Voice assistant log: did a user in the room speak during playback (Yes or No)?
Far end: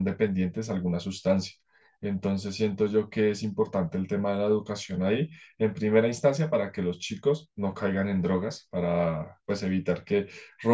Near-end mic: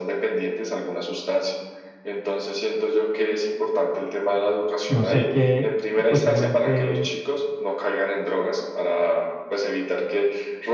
Yes